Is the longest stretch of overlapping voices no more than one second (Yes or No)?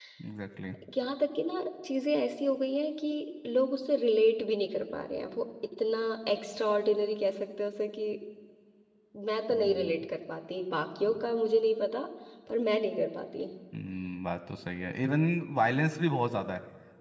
Yes